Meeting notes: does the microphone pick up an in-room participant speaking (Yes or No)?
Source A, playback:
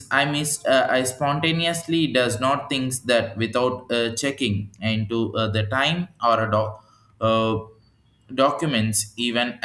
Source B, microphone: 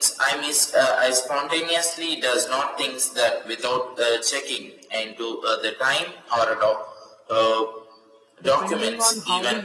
Yes